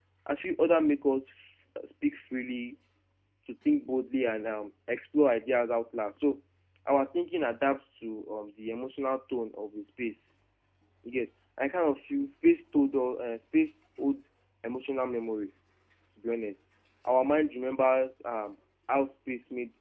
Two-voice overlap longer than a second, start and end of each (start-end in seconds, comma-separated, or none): none